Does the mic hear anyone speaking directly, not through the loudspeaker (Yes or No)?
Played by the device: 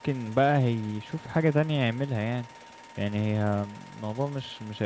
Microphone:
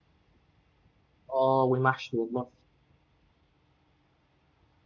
Yes